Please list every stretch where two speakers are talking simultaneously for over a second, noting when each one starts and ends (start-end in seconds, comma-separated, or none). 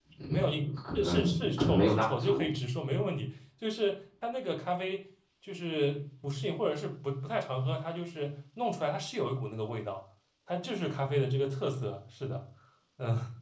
1.0-2.5